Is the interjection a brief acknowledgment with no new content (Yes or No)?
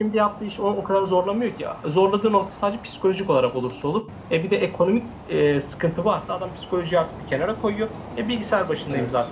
Yes